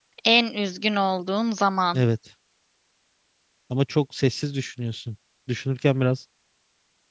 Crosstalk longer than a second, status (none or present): none